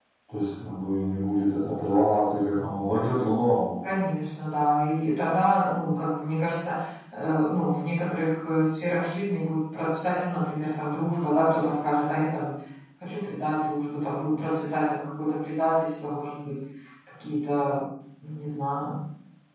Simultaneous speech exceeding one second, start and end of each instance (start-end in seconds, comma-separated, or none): none